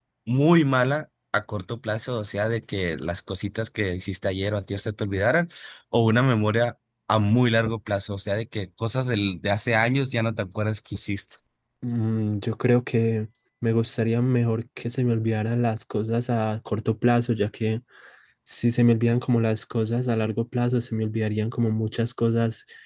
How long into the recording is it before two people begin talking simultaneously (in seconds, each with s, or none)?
none